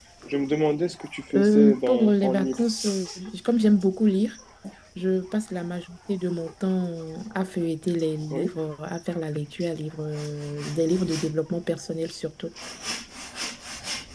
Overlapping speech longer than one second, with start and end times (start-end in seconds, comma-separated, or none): 1.4-2.6